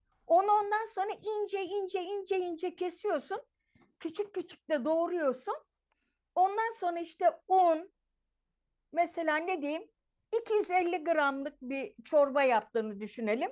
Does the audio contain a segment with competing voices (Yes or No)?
No